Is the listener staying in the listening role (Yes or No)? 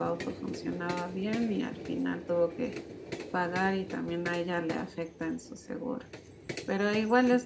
Yes